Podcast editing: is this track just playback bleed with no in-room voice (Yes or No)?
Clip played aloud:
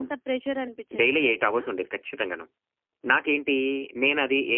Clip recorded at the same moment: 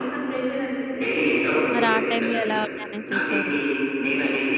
No